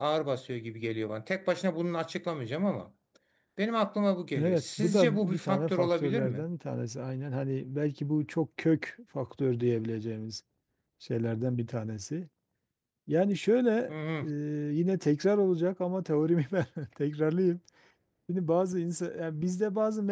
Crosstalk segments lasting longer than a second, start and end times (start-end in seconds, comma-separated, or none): 4.4-6.5